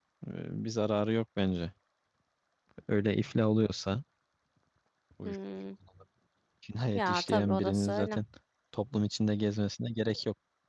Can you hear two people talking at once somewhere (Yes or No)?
Yes